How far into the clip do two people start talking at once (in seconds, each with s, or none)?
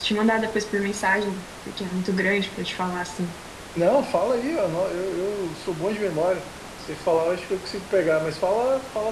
none